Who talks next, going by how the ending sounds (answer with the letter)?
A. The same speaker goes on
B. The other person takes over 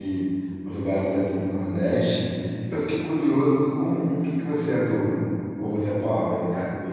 B